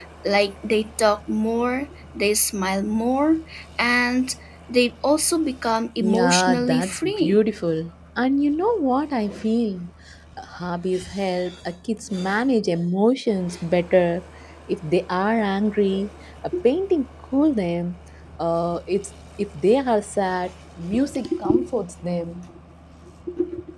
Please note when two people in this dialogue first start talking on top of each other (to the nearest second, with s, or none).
6 s